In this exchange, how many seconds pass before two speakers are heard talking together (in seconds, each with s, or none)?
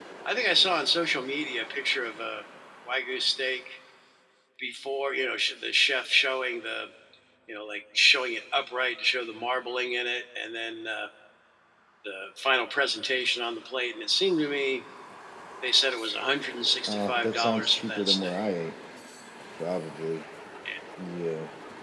16.9 s